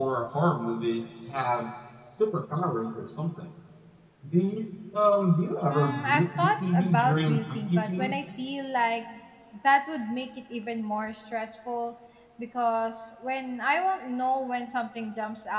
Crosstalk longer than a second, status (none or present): present